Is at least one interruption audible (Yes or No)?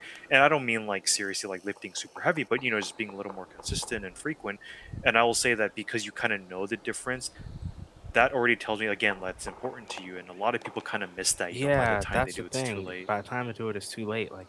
Yes